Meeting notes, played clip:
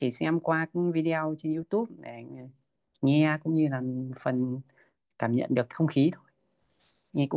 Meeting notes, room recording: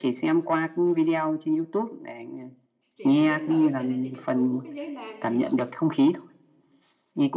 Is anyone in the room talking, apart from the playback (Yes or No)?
Yes